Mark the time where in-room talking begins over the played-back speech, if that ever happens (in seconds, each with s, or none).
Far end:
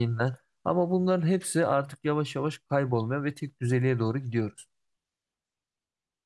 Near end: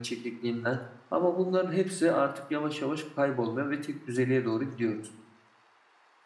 none